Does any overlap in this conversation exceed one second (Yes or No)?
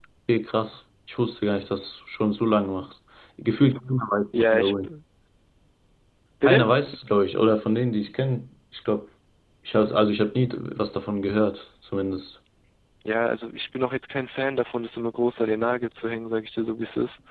No